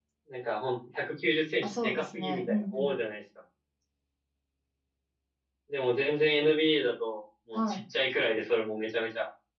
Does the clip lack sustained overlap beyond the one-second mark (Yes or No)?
No